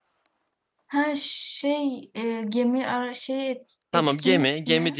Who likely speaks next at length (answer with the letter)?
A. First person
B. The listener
B